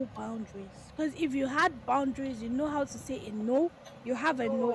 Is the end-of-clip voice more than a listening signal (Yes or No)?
No